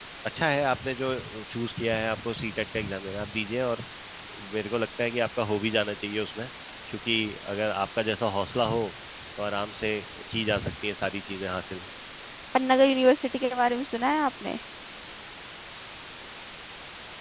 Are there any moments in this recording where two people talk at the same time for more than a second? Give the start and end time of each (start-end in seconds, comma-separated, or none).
none